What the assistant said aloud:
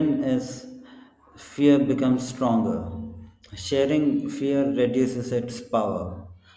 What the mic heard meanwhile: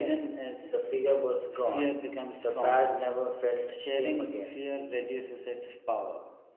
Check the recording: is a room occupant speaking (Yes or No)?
Yes